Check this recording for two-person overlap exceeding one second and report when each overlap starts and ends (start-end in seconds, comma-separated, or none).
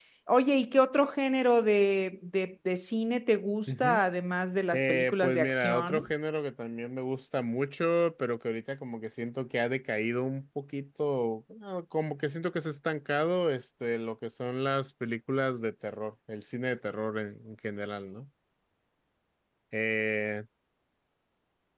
4.8-6.0